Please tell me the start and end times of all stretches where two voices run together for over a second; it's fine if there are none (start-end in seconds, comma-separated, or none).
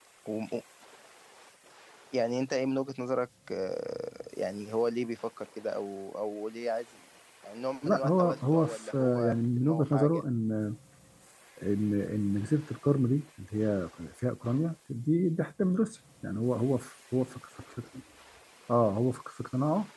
7.8-10.2